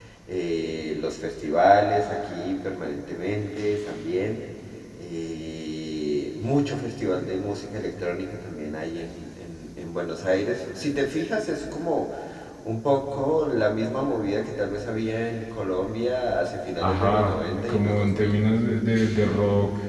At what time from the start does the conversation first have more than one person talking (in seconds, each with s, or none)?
16.8 s